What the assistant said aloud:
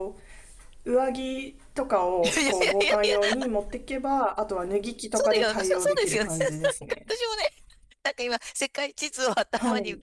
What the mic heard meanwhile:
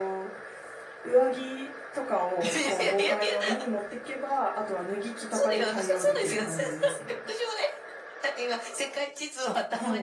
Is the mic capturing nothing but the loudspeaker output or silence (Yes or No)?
Yes